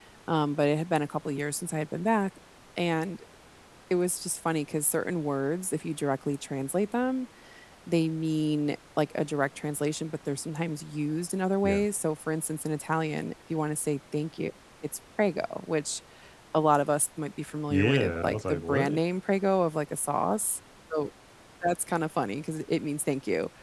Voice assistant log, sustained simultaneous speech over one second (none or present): present